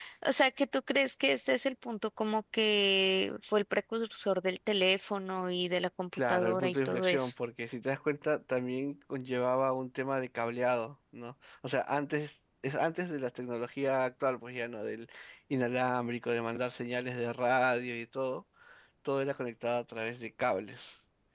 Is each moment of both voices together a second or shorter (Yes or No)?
No